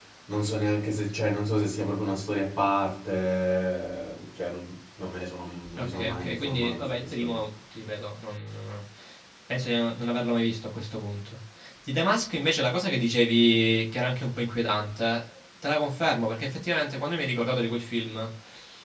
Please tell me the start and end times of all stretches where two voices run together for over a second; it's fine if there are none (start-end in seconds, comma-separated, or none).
5.8-7.5